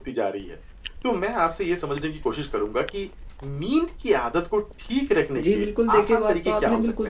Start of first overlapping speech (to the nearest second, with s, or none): 5 s